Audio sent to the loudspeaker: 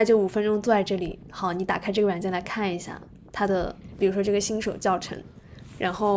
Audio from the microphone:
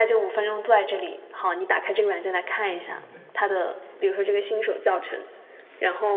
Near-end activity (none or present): present